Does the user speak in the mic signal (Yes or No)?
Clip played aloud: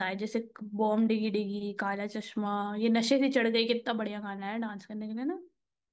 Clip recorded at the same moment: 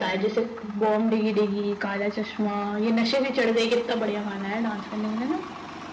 No